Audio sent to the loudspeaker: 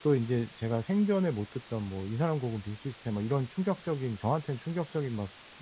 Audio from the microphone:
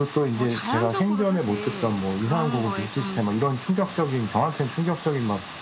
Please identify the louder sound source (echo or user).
echo